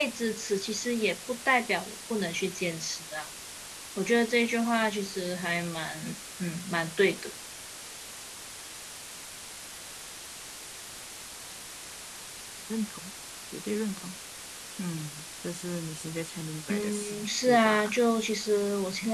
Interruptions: present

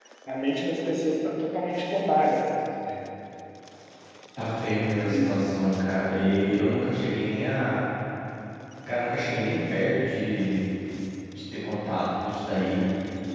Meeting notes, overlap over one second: none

